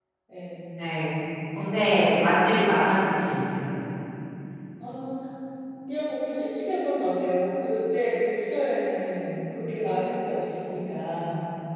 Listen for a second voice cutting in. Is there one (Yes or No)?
No